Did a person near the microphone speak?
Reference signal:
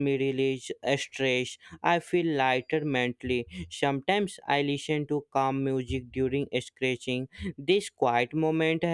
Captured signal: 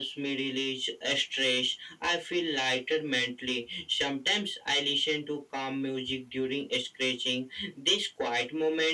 No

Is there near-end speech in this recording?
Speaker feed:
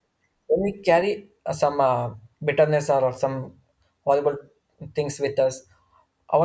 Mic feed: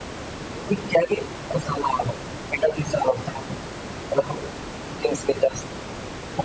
No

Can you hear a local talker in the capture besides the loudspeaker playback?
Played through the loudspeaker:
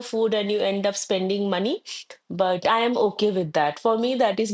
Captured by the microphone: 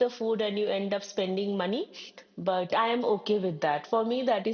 No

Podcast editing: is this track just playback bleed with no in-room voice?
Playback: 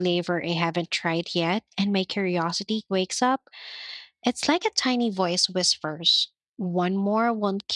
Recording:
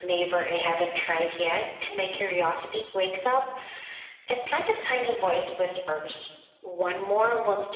Yes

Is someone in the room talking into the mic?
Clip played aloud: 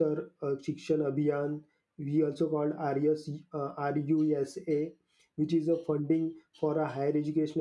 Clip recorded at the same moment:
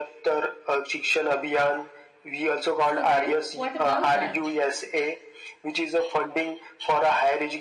Yes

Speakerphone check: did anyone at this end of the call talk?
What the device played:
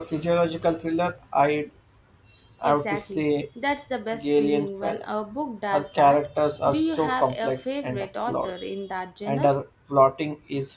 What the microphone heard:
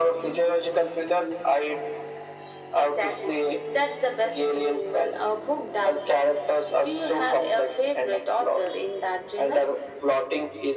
No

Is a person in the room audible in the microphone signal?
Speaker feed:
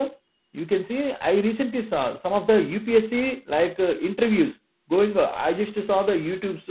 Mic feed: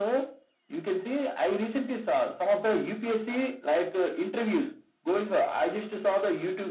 No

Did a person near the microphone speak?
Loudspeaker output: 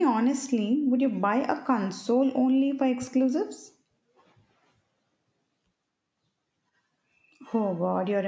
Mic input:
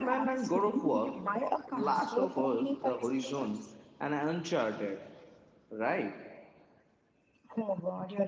Yes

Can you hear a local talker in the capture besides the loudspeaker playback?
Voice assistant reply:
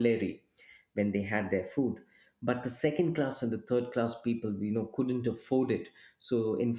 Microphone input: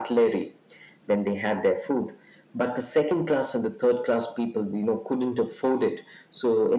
No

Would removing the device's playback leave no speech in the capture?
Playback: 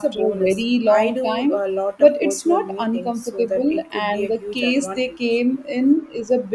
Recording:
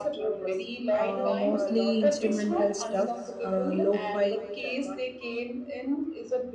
No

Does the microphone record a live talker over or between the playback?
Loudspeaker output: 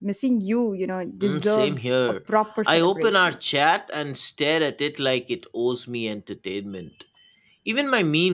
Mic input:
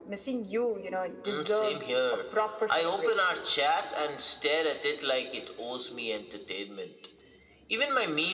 No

